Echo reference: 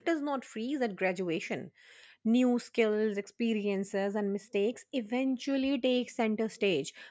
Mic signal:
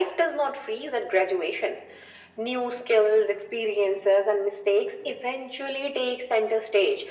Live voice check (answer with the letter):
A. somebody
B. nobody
B